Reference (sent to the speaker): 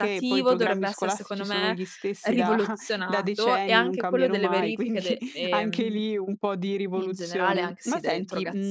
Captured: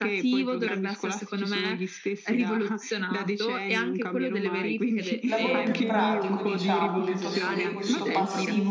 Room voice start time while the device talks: 5.2 s

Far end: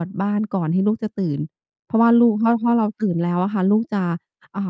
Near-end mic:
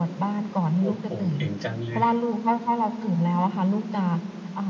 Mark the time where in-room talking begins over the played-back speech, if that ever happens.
0.8 s

